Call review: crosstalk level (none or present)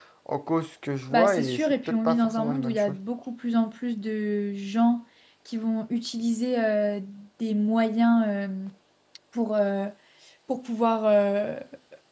present